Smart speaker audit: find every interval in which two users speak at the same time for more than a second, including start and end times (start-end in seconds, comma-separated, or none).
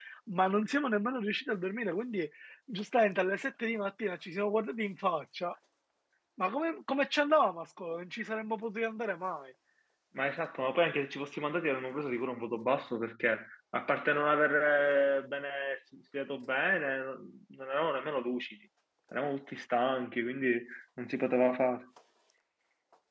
none